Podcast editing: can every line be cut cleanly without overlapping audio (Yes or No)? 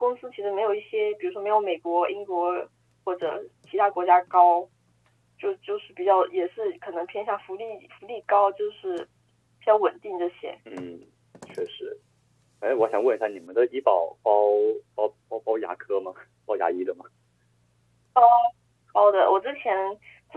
Yes